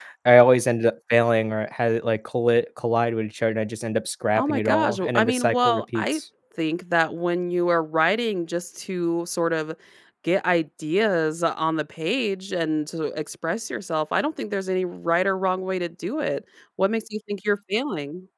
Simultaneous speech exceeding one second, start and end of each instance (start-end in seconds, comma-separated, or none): 4.4-6.2